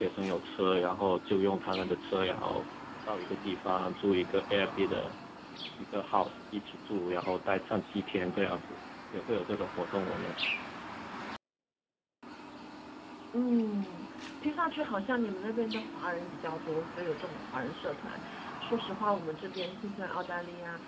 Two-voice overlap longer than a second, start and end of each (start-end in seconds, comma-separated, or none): none